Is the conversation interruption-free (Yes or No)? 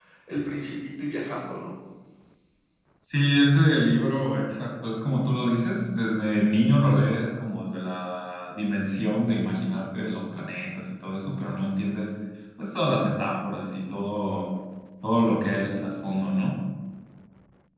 Yes